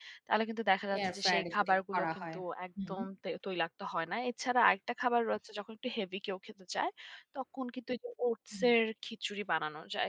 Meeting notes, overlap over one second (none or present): present